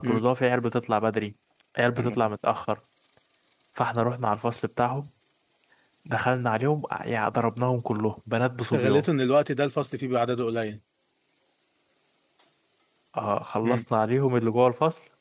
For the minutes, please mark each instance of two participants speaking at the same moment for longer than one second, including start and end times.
none

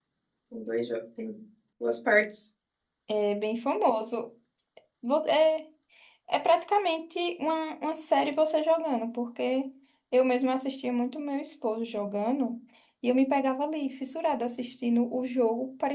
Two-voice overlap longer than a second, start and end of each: none

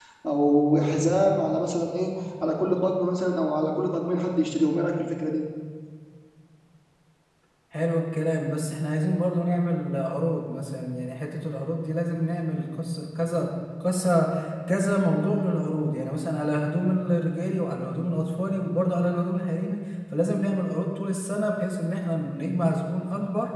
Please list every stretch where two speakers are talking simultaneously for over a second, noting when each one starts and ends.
none

